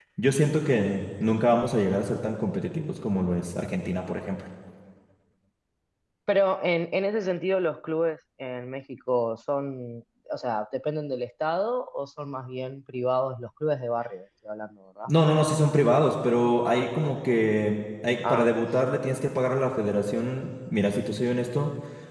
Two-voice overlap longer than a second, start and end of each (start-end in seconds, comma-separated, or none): none